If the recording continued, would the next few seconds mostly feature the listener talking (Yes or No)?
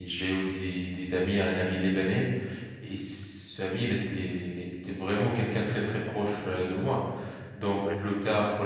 No